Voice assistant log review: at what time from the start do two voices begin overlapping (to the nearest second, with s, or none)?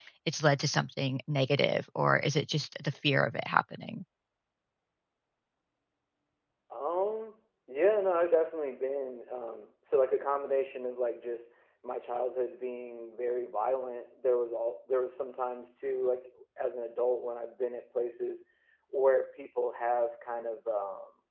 none